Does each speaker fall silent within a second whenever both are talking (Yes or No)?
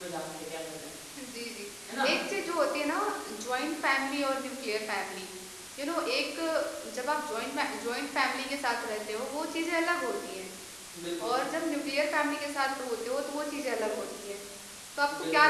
Yes